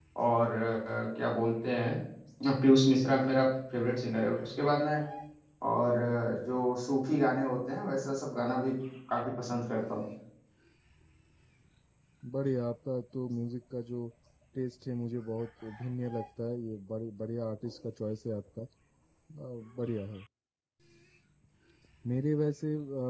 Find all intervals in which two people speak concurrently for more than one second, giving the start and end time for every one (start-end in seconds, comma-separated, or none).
none